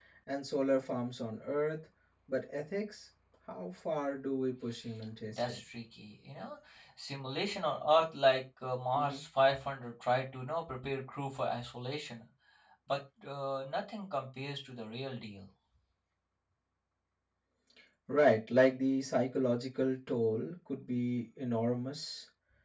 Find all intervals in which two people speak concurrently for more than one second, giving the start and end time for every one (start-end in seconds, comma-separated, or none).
none